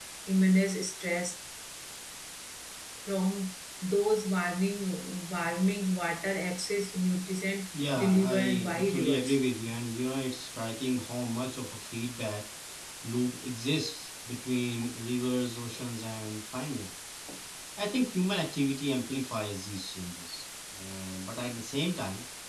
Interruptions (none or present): present